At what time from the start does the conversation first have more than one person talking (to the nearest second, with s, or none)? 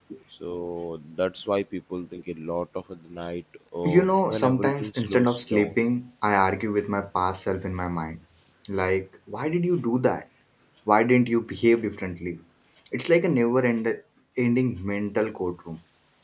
4 s